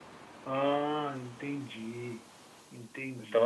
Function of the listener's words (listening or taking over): taking over